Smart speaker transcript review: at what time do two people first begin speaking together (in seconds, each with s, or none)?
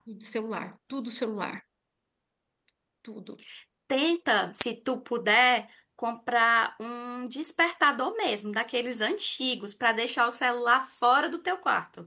none